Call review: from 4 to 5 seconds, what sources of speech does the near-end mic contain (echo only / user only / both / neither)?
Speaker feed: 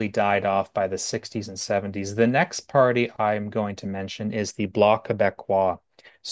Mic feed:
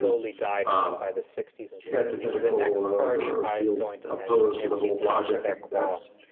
both